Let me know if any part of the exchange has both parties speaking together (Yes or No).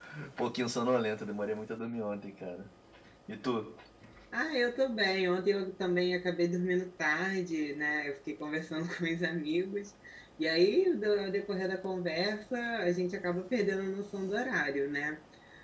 No